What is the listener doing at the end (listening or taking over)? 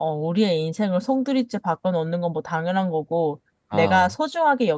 listening